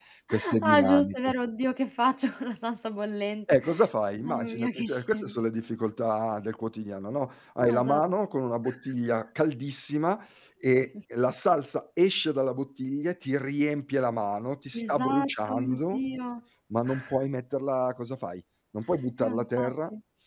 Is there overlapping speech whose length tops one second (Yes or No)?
Yes